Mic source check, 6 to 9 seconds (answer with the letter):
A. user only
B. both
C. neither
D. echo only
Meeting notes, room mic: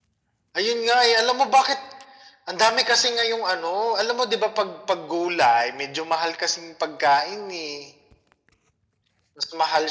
D